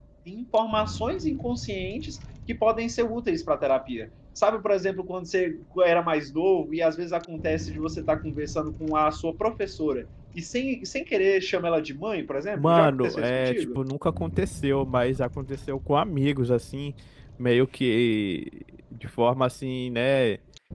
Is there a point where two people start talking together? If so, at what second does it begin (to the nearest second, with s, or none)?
13 s